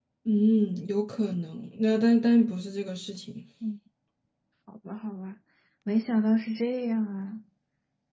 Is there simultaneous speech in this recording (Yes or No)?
No